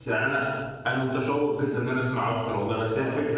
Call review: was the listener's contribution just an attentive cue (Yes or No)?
Yes